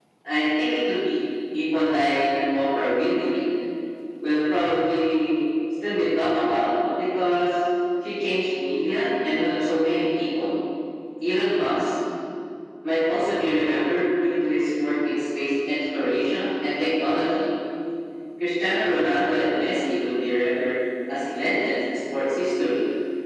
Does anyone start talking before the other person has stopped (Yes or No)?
No